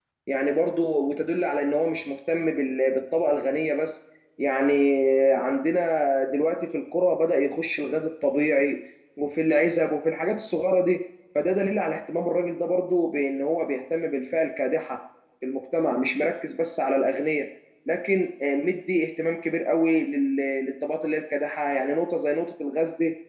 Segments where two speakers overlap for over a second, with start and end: none

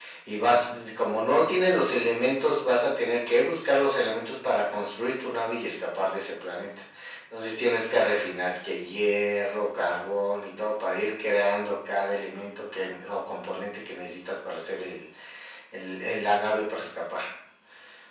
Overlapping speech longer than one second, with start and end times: none

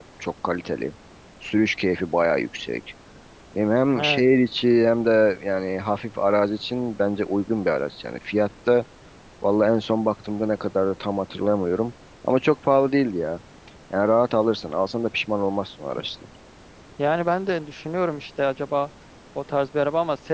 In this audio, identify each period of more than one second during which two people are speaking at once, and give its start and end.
none

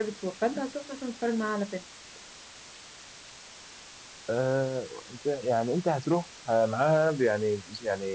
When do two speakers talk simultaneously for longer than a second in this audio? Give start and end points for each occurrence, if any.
none

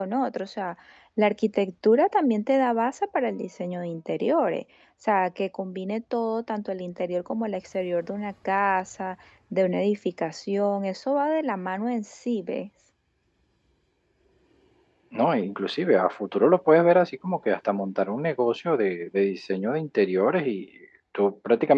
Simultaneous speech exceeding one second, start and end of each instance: none

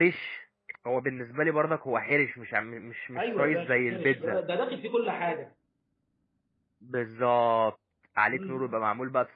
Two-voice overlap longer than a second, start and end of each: 3.2-4.4

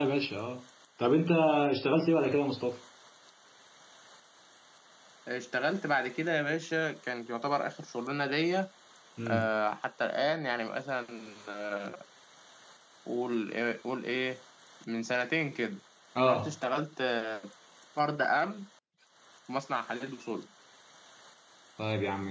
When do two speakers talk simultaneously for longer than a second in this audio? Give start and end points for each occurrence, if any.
none

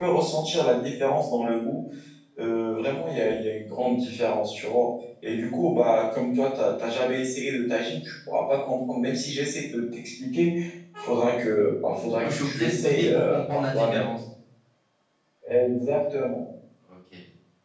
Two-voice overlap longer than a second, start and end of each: 12.2-14.1

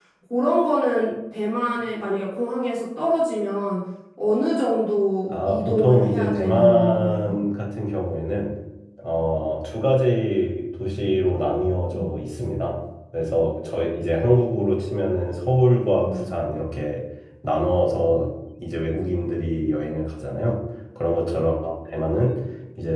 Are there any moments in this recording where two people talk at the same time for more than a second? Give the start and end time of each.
5.3-7.4

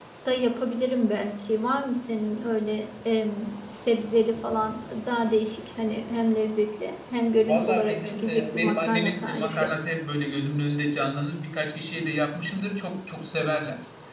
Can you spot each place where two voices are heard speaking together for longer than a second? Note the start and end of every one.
7.5-9.7

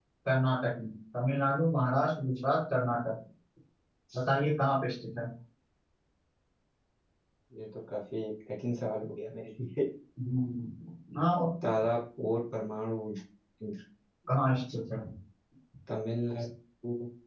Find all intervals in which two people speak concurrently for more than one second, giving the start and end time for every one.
none

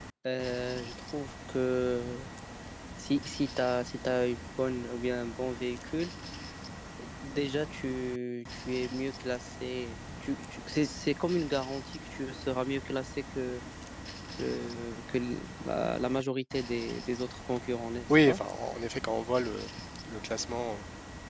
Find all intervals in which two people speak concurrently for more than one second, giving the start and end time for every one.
none

